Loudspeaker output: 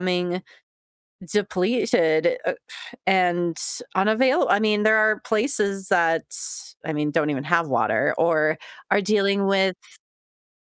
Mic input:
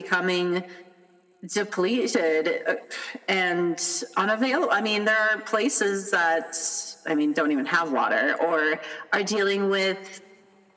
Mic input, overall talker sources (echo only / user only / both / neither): echo only